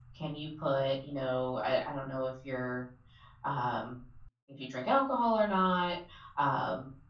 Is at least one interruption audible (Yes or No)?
No